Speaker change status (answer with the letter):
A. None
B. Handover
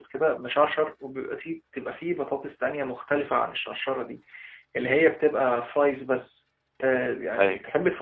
B